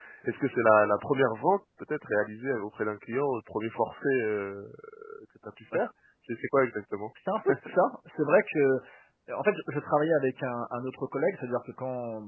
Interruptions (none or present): none